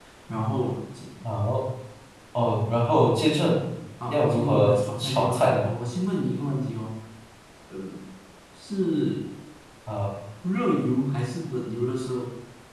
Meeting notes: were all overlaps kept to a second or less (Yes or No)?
No